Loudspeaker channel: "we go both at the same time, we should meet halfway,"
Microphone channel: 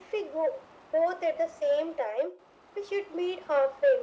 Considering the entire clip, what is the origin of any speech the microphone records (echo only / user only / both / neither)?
echo only